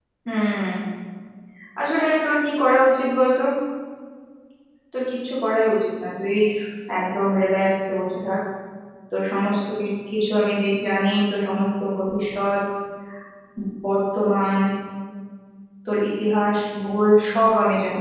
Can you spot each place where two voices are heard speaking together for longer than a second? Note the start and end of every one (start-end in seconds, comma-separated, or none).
none